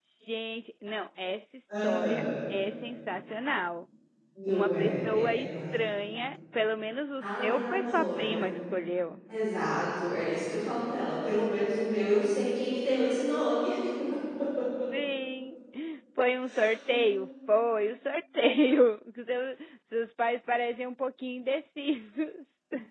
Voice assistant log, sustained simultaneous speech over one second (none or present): present